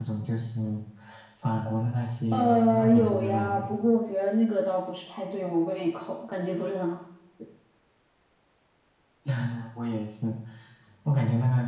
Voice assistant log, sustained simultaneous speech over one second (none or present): present